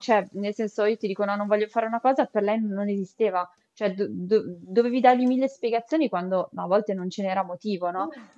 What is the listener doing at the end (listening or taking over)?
listening